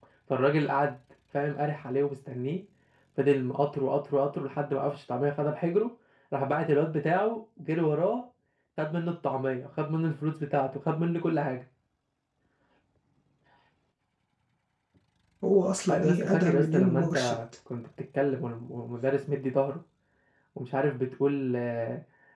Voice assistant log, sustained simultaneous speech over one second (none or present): present